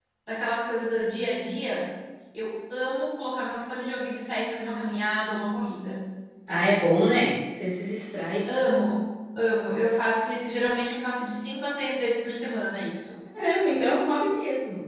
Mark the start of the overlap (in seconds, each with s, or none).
none